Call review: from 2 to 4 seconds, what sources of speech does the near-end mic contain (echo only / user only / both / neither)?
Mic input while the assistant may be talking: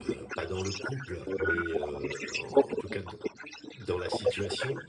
both